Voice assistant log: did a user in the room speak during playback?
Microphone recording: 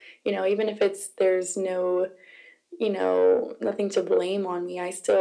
No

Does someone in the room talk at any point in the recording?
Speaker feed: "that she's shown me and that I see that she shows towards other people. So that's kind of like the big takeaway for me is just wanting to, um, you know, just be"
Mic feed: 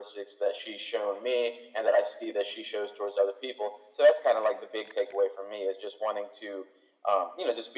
No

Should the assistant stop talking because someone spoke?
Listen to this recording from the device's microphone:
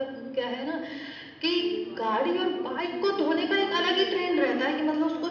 Yes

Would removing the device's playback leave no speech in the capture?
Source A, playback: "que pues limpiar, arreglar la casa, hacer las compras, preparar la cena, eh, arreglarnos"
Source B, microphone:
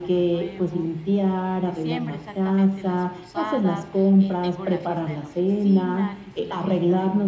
No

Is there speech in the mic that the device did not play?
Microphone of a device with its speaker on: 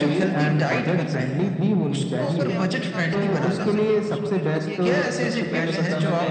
Yes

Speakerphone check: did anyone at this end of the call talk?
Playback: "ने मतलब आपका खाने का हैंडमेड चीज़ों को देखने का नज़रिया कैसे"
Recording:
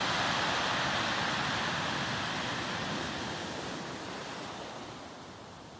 No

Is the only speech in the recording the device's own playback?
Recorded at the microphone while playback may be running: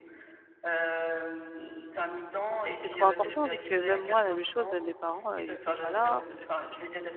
No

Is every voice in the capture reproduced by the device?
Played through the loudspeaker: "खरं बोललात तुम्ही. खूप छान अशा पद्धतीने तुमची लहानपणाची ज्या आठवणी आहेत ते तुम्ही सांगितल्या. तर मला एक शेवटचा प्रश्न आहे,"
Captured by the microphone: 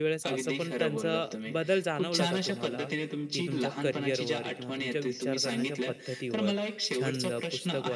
No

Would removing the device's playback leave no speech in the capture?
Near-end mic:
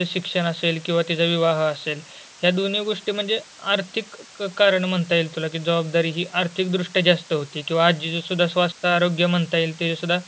No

